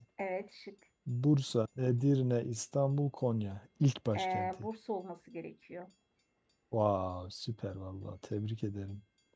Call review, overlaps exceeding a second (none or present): none